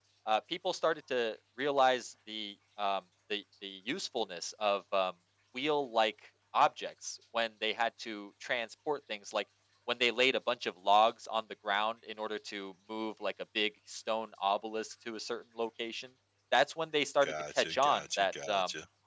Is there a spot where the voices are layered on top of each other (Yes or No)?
Yes